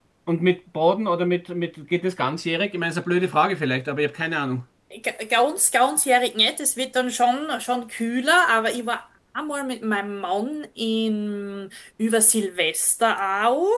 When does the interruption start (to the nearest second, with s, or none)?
none